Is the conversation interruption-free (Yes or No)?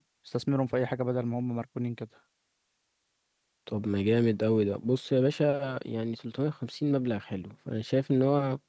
Yes